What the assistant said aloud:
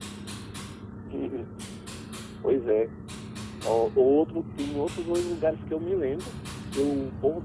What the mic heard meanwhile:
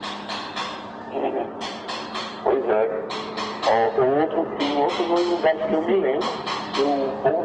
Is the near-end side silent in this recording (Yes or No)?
No